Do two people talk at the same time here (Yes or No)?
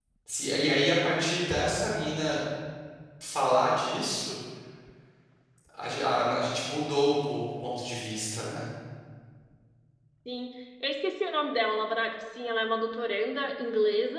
No